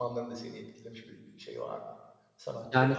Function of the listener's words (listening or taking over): taking over